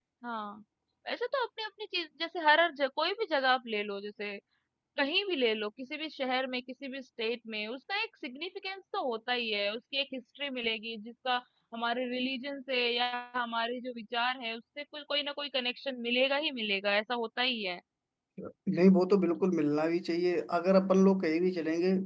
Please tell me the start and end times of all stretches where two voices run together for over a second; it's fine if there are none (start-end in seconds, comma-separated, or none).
none